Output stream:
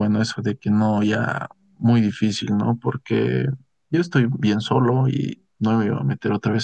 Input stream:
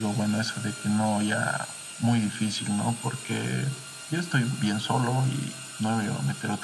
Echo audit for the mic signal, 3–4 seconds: echo only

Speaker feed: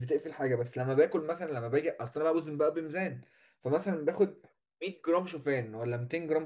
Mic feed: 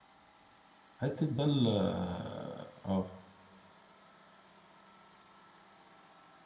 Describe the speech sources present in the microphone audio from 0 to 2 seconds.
user only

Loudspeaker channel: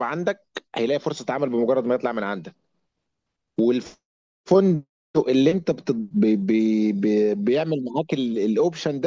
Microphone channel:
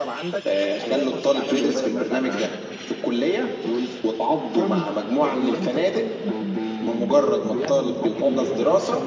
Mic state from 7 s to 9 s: both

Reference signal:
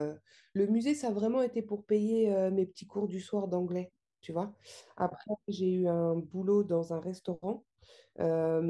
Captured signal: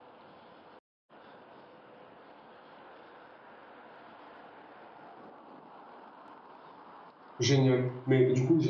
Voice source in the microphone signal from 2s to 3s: neither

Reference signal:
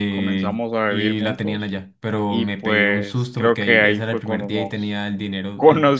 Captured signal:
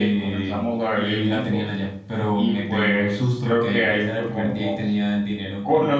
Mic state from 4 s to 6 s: echo only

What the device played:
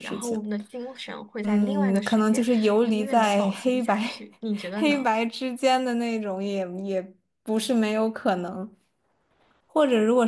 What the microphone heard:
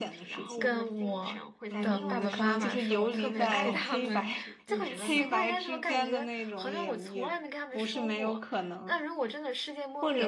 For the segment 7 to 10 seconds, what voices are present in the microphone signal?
both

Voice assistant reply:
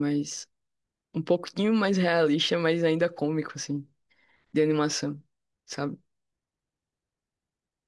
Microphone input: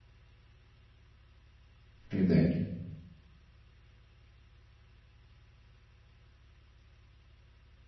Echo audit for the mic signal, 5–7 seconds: neither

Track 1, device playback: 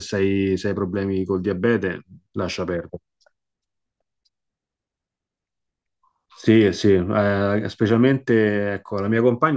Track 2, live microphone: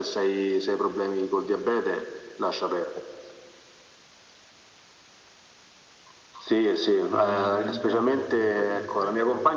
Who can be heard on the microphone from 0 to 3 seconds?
echo only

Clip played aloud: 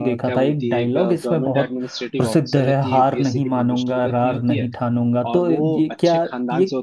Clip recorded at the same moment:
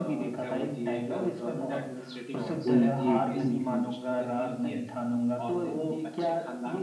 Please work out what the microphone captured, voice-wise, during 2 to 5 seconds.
both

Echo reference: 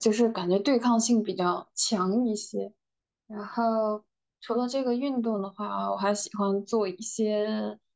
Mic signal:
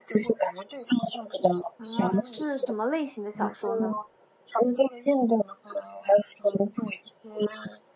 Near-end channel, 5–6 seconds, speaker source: echo only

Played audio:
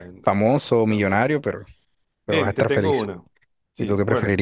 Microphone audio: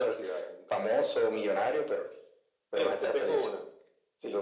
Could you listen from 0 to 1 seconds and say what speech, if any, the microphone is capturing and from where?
echo only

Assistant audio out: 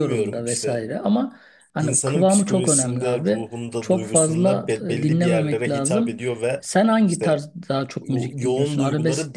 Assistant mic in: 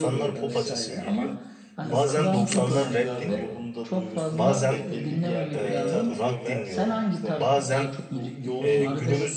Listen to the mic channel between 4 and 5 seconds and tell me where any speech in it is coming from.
both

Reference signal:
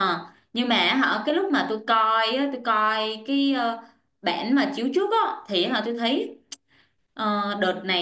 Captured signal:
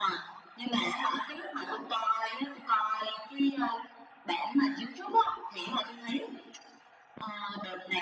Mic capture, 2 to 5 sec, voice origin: echo only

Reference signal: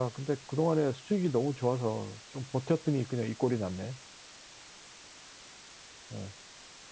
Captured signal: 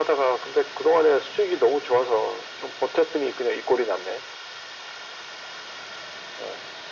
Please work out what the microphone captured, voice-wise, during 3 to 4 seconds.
echo only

